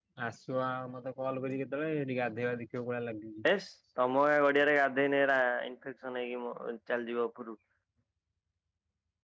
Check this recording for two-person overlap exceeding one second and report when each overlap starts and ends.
none

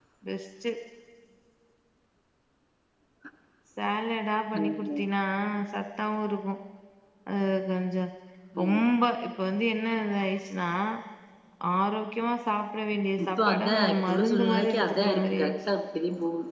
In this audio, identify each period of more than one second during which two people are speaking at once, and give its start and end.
13.2-15.5

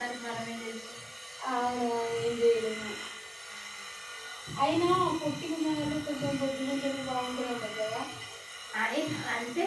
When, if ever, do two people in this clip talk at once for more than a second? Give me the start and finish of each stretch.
none

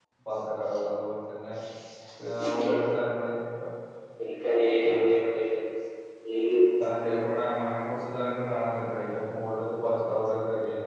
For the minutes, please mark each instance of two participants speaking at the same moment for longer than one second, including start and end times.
none

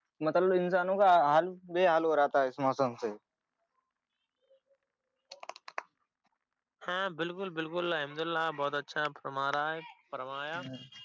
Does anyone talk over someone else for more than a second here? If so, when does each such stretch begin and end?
none

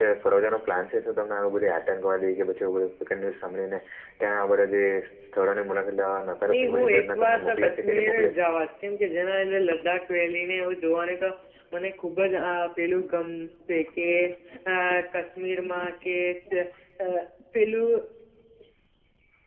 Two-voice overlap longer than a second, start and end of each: 6.5-8.4

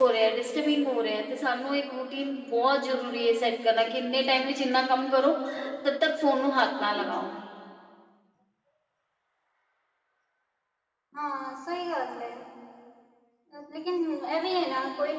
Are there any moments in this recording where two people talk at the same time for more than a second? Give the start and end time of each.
none

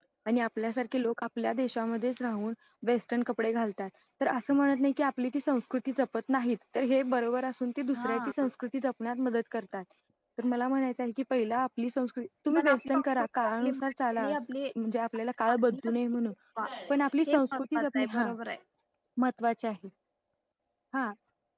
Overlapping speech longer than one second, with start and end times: 12.6-14.2, 16.9-18.3

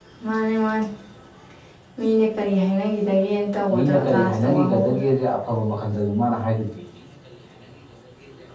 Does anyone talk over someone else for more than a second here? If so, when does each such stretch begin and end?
3.7-5.0

